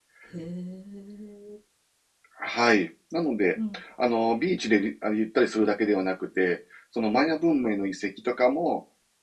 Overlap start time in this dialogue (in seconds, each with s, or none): none